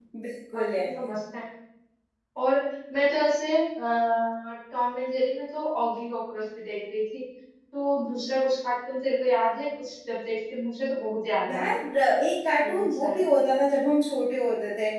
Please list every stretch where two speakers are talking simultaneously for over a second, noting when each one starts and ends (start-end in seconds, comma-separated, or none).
none